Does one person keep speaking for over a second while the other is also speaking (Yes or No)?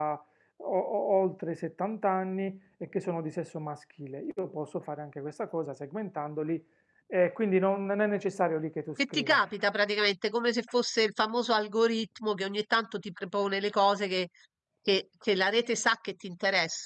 No